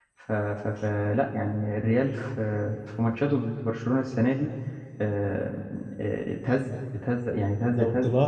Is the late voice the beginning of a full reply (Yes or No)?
Yes